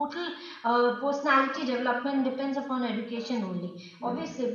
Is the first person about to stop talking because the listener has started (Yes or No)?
No